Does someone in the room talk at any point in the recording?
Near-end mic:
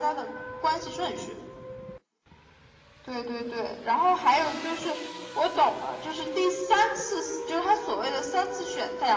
No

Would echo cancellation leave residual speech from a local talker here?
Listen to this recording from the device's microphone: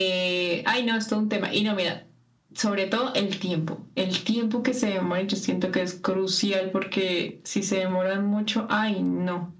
No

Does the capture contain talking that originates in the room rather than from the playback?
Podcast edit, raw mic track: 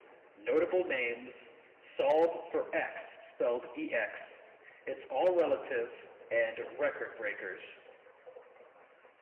No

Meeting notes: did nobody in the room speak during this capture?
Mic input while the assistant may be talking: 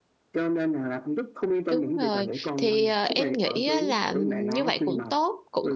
No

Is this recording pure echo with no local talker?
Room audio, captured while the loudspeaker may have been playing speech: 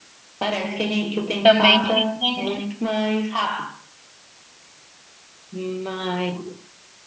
No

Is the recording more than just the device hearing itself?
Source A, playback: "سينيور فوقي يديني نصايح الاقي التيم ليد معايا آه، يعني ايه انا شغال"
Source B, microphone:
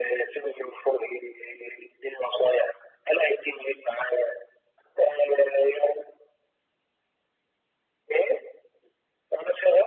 No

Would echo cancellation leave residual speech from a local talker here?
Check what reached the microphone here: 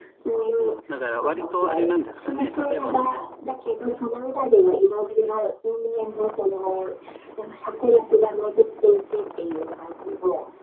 Yes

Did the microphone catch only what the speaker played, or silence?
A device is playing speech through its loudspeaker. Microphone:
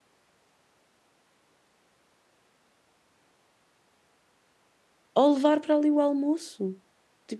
No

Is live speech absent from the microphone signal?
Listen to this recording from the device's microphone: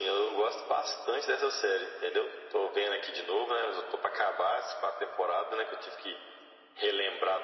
Yes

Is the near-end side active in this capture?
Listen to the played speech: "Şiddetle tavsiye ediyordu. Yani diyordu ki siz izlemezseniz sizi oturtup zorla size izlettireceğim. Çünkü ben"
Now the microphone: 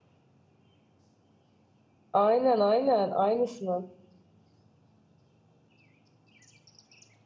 Yes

